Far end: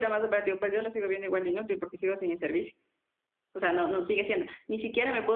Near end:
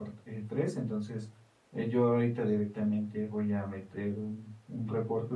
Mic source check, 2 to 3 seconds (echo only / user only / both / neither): user only